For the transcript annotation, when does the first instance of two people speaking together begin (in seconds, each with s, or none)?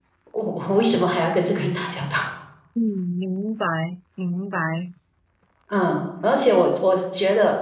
none